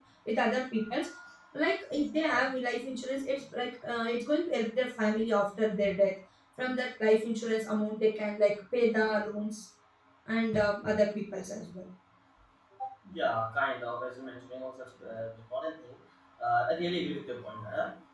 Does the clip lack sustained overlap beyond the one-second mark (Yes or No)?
Yes